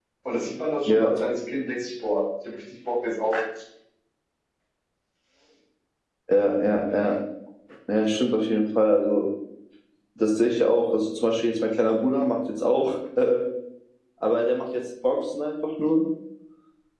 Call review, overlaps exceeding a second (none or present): none